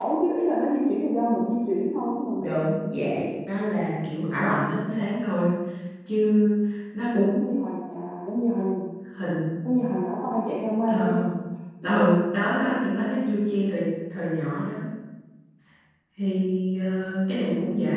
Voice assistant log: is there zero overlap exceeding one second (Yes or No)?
Yes